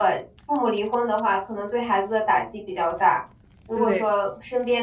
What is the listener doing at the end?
listening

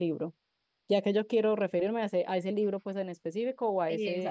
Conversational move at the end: taking over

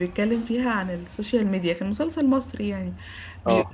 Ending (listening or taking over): listening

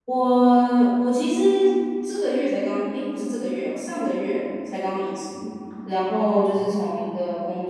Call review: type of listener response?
listening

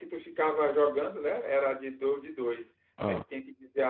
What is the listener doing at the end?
listening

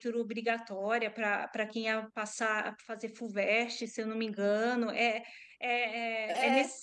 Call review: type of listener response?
listening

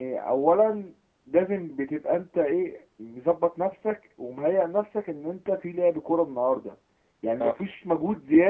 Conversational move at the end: listening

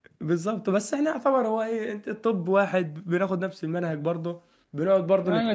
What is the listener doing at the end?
taking over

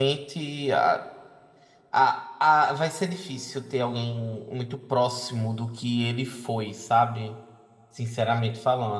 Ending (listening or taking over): listening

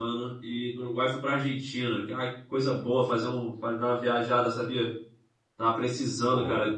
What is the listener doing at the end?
listening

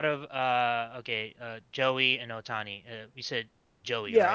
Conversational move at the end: taking over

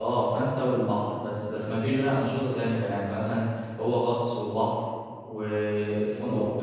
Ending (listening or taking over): listening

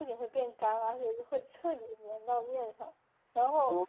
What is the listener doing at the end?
listening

